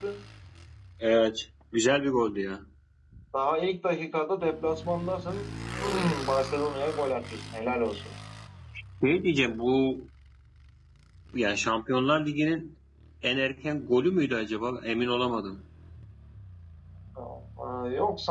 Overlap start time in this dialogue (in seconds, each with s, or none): none